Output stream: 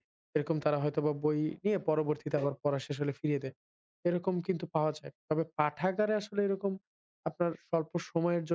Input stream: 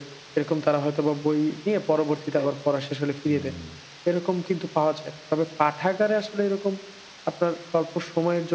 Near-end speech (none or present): present